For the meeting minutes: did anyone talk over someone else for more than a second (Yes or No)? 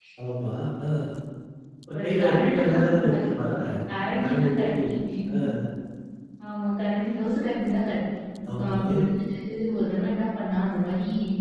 Yes